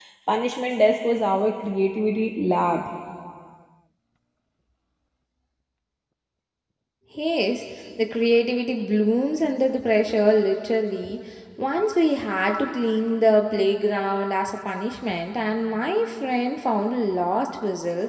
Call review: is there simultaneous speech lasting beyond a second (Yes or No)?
No